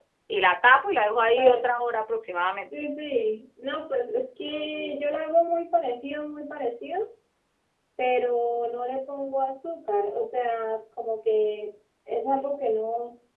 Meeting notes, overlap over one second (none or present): none